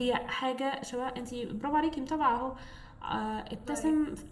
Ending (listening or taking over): listening